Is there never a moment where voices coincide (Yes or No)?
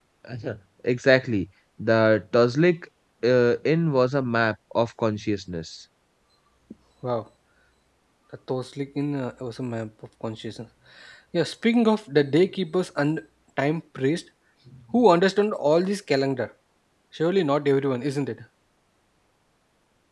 Yes